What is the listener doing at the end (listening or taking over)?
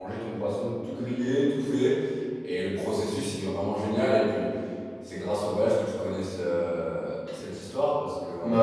listening